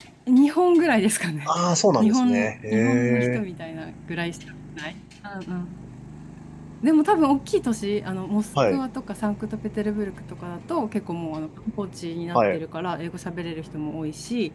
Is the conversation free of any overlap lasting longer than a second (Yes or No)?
No